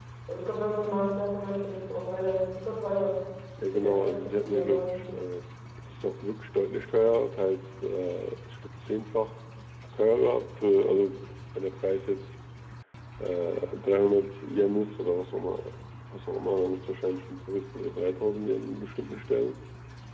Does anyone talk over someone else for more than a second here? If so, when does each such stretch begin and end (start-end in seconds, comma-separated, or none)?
3.7-5.0